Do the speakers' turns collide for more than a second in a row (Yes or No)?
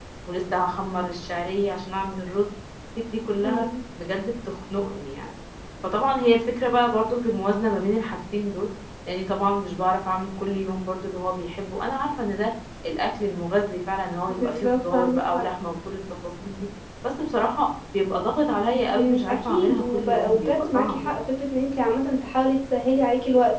Yes